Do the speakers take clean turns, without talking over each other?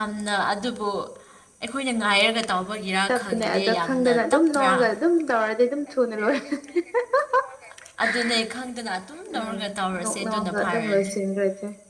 No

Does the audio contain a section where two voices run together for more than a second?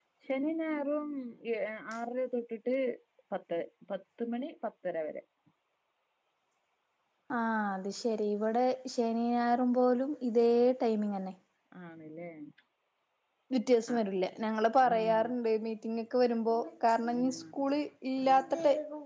No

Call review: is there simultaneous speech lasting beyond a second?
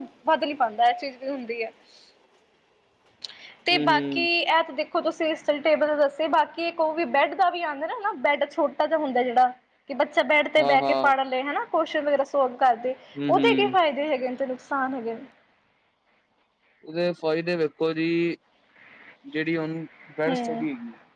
No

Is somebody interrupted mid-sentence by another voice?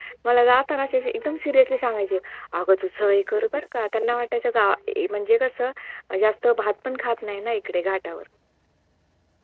No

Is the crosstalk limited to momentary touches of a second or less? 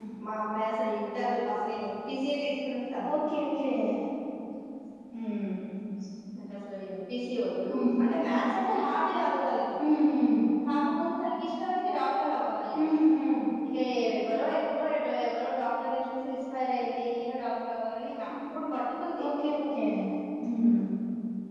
Yes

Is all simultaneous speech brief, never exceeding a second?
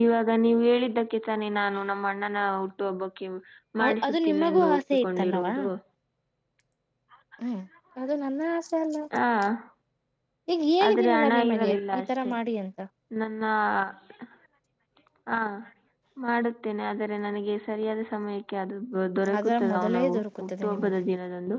No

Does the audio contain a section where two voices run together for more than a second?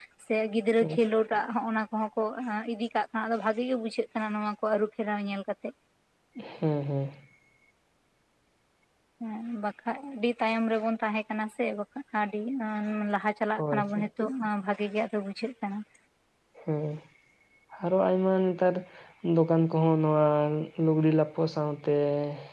No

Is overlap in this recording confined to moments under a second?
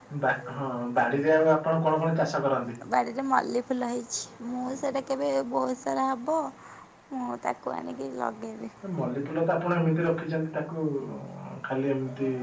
Yes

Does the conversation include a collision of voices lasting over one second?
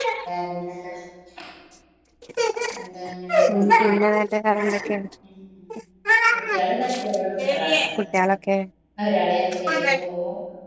No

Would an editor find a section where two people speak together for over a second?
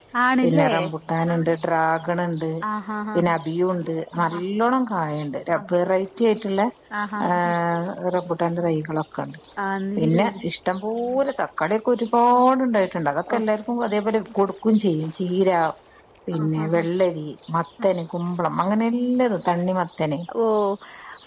No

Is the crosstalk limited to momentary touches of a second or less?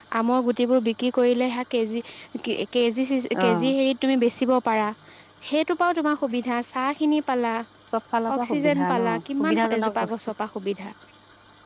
No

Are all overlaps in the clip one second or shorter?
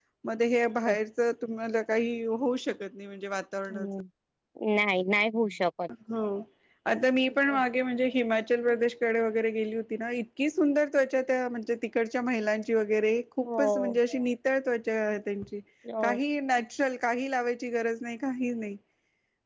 Yes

